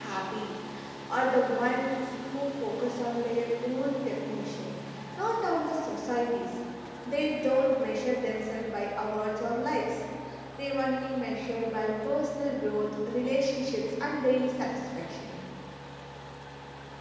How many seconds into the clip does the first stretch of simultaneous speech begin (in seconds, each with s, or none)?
none